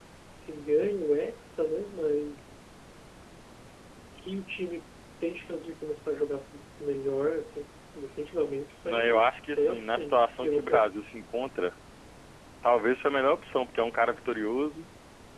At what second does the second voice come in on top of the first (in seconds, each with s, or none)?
8.9 s